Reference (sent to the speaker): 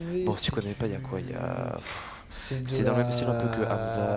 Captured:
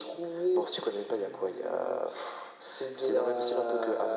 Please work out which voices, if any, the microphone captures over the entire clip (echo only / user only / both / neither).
echo only